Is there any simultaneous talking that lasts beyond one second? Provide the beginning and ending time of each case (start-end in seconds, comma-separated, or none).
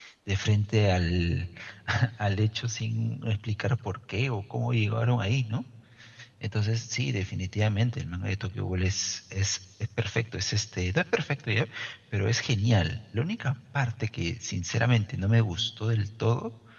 none